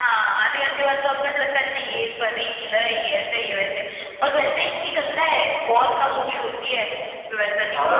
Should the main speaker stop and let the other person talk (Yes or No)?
Yes